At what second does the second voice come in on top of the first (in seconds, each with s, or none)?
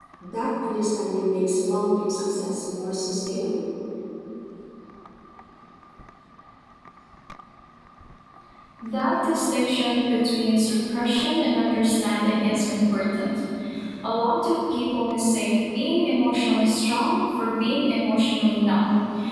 none